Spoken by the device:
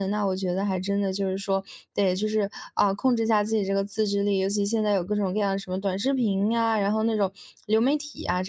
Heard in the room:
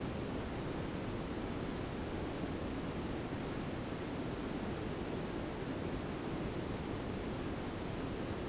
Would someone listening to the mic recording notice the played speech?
No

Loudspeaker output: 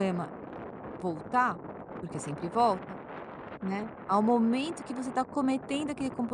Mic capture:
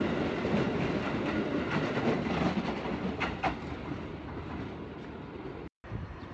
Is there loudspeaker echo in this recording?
No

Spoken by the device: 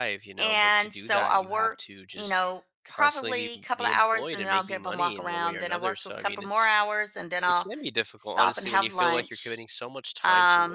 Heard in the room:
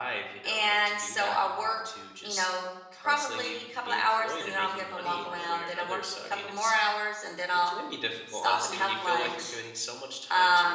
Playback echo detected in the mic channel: Yes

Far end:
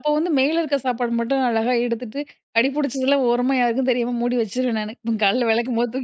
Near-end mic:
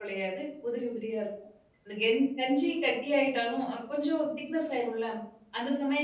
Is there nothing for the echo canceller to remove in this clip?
Yes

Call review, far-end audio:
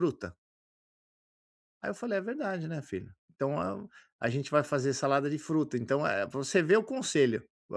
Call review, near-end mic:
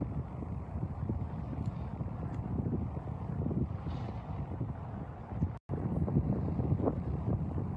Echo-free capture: Yes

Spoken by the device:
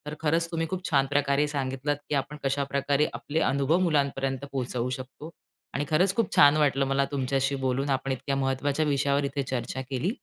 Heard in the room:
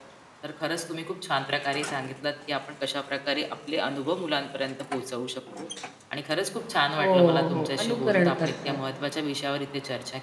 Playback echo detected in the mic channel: Yes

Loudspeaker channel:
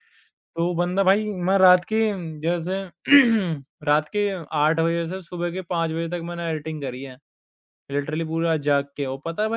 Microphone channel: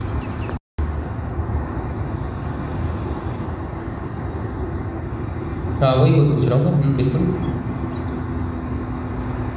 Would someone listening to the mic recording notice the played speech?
No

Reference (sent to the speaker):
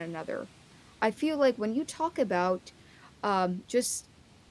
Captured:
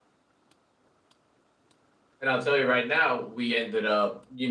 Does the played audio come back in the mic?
No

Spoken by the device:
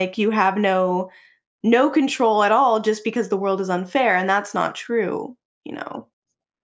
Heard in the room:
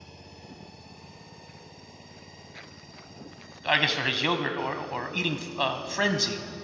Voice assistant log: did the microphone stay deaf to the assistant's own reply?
Yes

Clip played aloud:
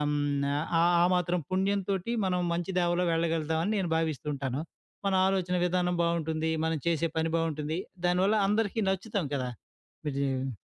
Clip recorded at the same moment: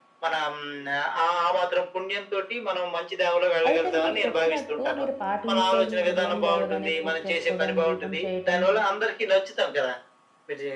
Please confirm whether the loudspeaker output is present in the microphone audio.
Yes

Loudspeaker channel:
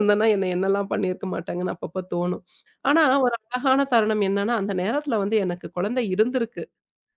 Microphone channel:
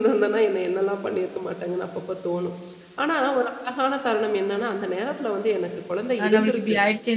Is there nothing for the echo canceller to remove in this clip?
No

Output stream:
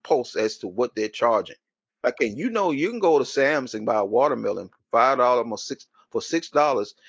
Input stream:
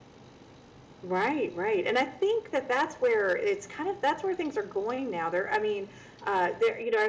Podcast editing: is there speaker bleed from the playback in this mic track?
No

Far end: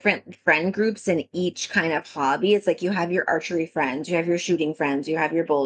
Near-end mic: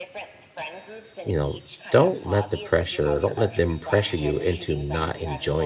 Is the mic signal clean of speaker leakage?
No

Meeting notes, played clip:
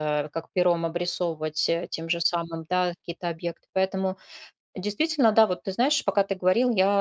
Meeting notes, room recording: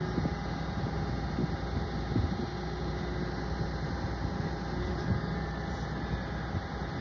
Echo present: No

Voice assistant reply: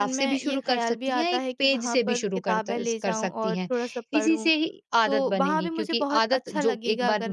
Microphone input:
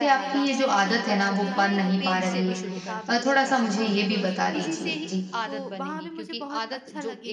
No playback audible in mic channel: No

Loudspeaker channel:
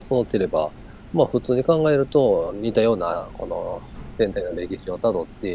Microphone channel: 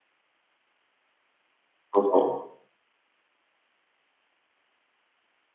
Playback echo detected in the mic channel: No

